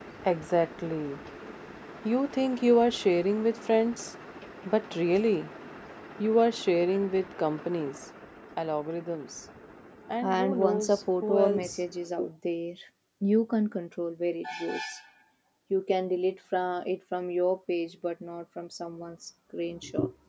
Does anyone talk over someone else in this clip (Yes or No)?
Yes